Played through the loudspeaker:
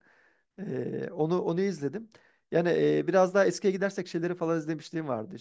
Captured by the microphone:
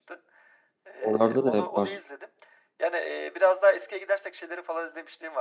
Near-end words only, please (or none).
Oralarda da hep var.